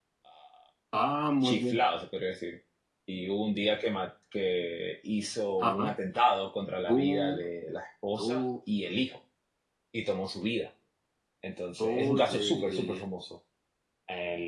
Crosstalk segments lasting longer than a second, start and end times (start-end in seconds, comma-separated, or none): 11.8-13.0